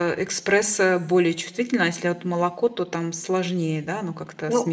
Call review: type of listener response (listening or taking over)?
listening